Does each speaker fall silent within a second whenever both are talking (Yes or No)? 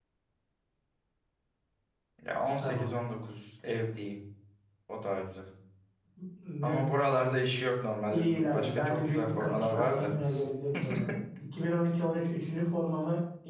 No